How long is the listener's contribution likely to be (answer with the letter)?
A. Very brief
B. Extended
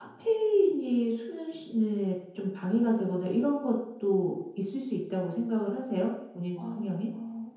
B